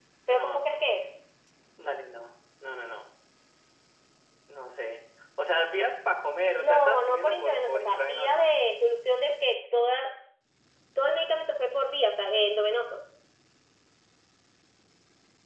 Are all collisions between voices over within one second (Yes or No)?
No